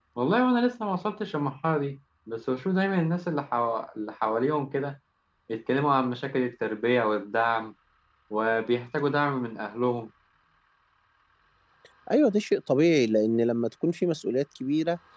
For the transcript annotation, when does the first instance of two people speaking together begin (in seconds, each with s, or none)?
none